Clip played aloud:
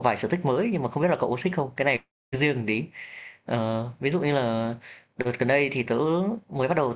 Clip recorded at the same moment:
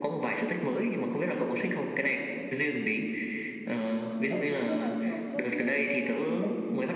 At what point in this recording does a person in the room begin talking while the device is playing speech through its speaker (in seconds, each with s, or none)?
4.3 s